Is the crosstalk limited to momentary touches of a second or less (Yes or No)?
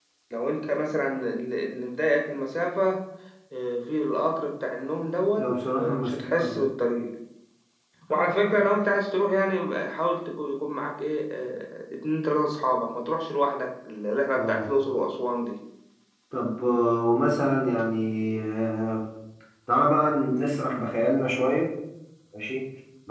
No